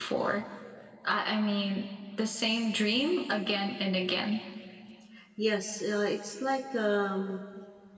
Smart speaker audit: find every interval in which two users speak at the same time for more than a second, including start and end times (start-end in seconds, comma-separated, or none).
none